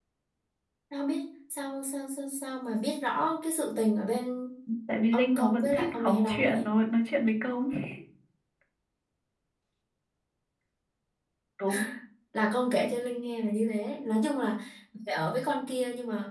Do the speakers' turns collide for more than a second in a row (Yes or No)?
Yes